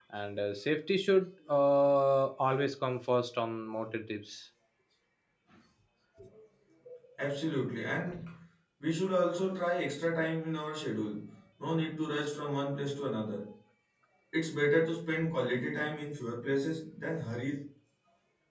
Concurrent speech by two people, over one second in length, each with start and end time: none

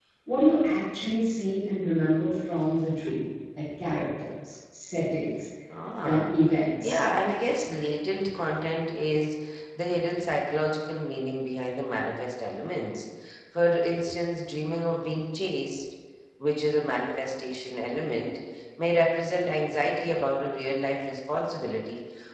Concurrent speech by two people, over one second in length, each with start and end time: none

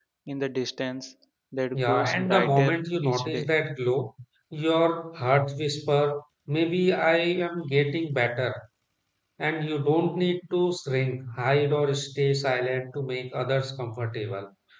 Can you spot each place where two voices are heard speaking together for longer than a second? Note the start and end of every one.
1.7-3.5

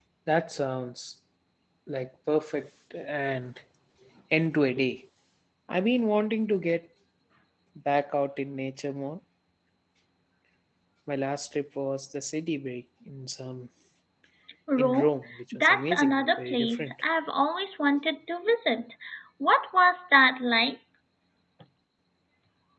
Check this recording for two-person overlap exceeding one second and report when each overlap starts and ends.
15.5-16.9

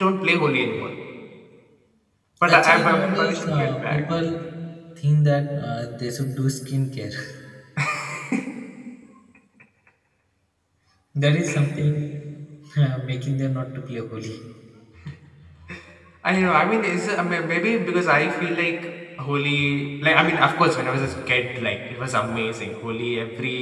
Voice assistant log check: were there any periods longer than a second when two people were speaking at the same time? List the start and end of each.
2.5-4.0

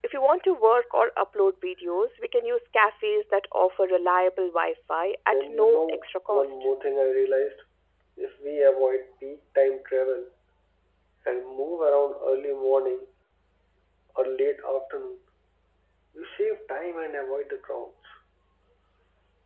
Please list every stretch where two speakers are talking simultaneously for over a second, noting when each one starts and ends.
5.3-6.5

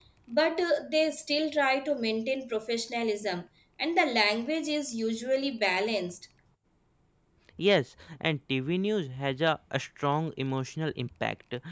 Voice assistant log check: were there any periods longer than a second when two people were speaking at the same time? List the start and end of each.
none

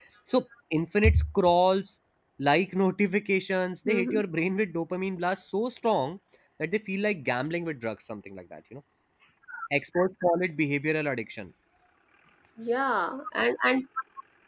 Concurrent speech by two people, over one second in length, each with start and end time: none

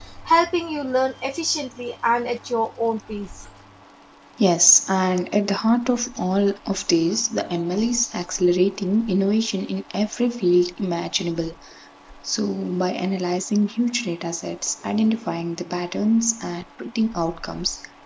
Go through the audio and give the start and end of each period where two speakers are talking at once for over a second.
none

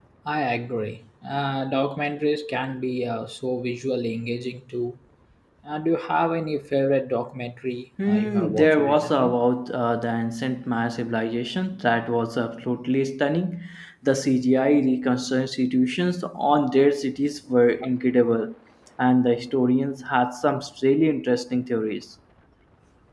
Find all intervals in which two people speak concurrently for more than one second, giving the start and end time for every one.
8.1-9.4

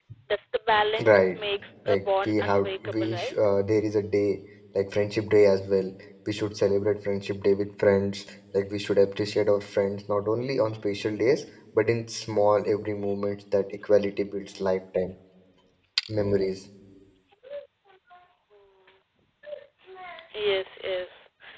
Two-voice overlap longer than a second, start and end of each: 1.9-3.3

